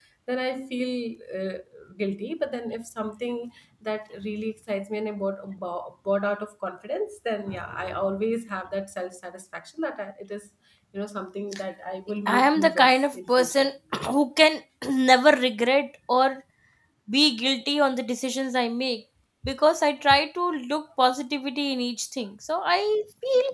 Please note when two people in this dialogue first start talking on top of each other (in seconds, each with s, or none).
12.3 s